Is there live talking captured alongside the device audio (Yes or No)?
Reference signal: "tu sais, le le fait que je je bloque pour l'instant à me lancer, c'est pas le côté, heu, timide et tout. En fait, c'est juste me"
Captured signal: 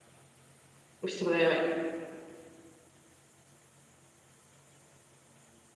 Yes